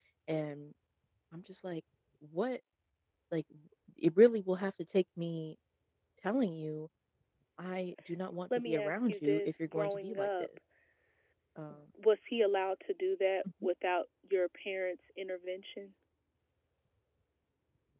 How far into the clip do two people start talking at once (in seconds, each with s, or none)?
8.5 s